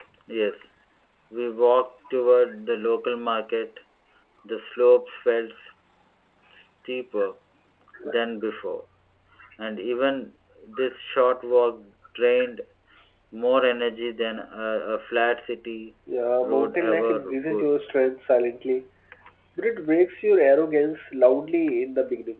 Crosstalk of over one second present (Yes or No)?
Yes